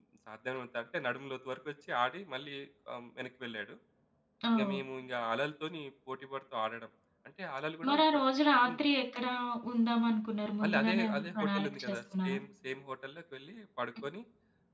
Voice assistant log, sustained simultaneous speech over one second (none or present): present